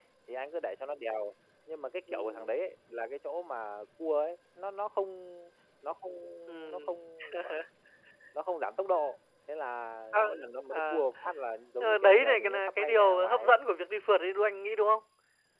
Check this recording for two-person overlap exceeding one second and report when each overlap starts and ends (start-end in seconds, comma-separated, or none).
11.8-13.5